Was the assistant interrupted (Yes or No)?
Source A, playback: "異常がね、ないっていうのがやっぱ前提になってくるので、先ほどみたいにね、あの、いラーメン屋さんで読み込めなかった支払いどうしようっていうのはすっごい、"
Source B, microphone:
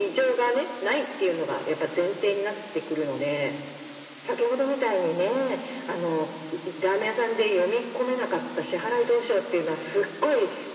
No